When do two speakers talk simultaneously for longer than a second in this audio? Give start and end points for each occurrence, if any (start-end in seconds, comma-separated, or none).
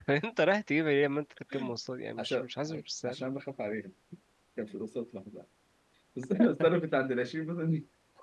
none